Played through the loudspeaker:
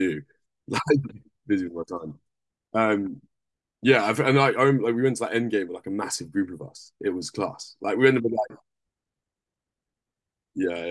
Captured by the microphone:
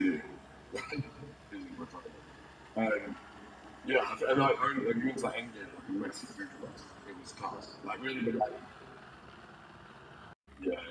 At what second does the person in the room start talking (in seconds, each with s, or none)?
none